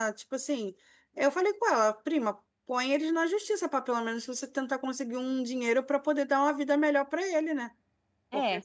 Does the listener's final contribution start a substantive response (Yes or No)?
No